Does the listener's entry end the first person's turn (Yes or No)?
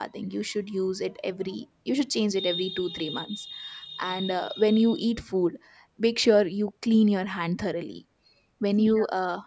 No